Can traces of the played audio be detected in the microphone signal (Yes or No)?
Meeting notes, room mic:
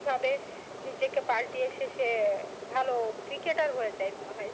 Yes